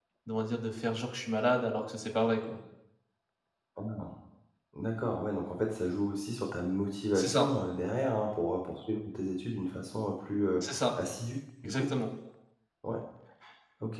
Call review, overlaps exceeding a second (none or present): none